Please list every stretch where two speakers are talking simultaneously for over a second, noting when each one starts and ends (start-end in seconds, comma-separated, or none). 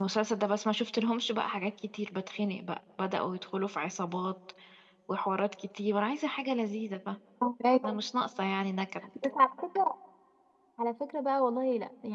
none